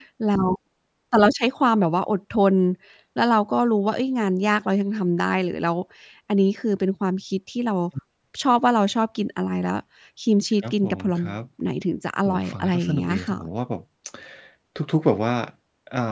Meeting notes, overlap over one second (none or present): present